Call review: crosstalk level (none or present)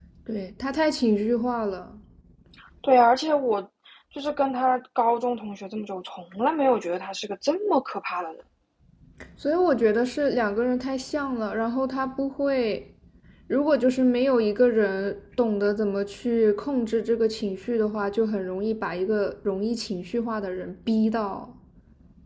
none